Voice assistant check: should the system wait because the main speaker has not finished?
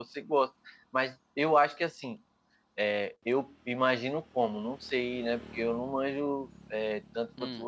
Yes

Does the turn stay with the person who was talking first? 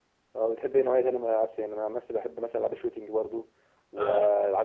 Yes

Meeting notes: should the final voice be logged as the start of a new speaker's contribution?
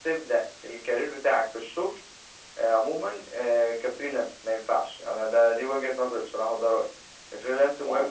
No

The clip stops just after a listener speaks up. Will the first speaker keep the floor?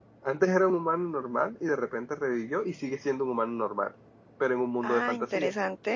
No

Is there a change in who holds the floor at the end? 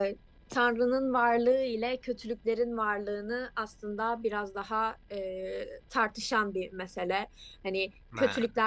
No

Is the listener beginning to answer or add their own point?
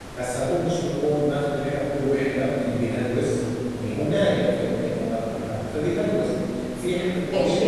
No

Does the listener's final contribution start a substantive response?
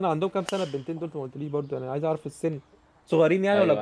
Yes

